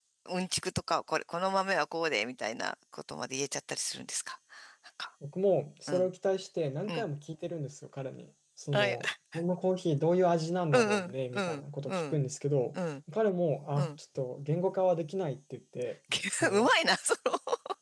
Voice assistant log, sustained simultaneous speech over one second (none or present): present